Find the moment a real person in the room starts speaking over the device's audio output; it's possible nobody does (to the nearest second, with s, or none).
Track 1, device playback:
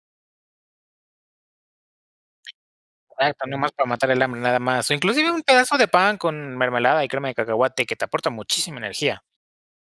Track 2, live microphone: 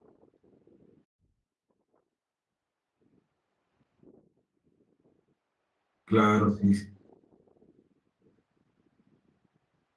6 s